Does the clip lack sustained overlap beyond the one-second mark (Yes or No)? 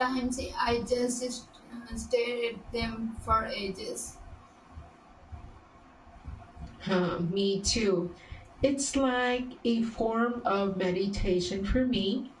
Yes